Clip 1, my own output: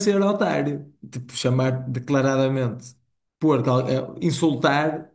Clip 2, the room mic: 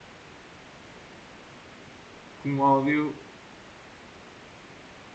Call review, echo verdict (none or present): none